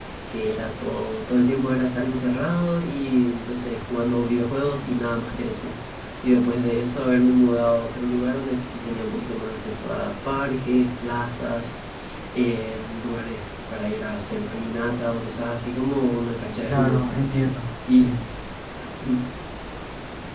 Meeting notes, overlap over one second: none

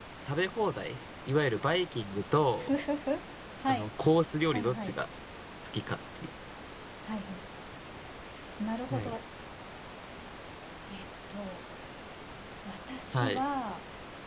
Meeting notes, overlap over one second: none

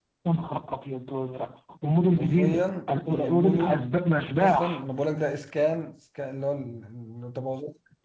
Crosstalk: present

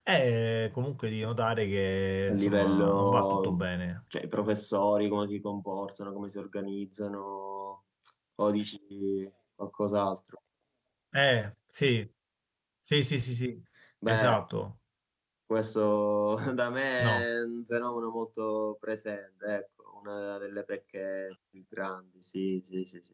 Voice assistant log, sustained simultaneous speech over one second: present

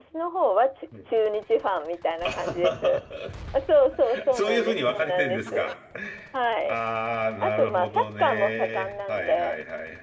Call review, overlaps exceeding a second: present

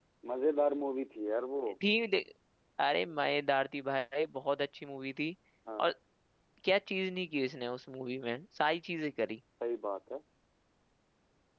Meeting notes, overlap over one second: none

